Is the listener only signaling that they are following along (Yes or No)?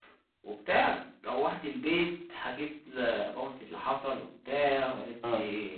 Yes